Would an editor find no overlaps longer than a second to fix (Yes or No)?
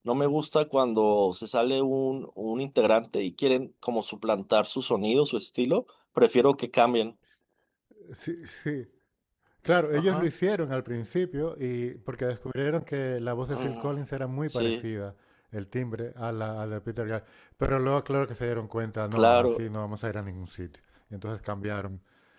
Yes